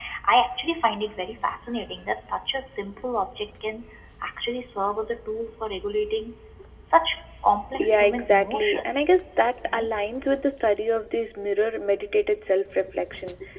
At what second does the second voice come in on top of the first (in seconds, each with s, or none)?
7.7 s